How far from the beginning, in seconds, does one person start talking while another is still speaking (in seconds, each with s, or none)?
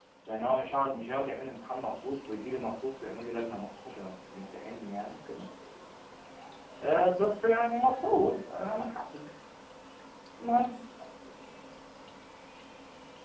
none